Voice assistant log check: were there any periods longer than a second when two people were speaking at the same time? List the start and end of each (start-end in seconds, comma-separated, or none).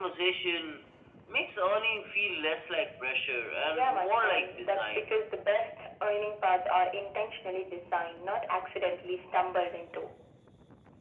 3.6-5.1